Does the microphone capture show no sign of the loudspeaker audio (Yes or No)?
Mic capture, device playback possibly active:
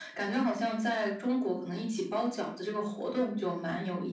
No